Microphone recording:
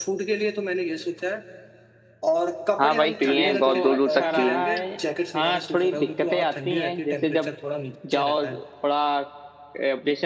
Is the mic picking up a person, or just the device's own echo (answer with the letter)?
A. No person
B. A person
B